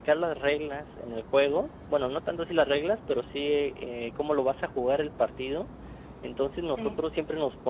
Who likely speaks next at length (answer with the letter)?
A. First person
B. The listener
A